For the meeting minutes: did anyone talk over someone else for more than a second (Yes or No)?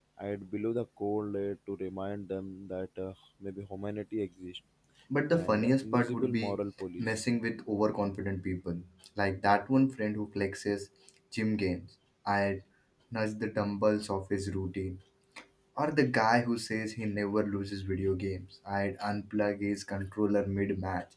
Yes